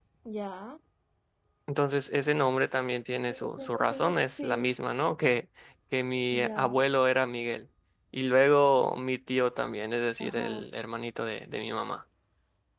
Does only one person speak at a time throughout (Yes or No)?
No